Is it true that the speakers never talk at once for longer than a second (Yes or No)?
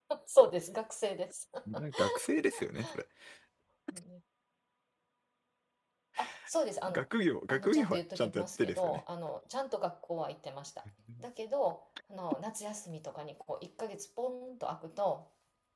No